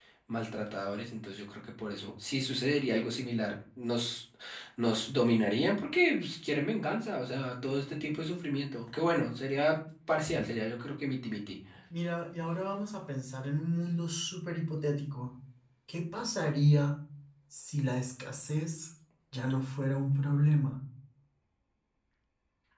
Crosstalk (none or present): none